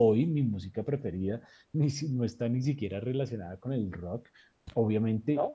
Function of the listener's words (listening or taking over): listening